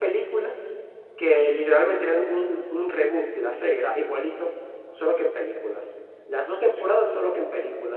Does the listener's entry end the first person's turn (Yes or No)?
No